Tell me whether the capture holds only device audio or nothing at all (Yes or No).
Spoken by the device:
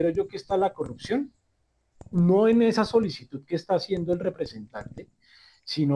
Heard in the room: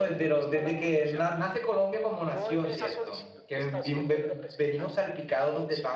No